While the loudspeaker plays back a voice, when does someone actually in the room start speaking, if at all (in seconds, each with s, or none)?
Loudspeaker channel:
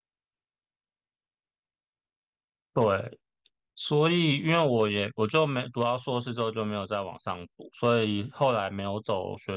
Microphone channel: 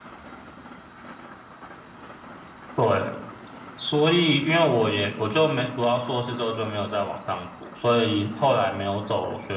none